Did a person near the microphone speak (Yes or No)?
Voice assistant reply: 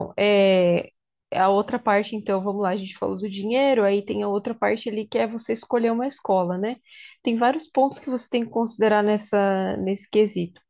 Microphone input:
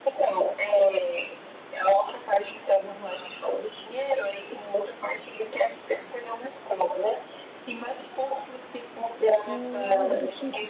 Yes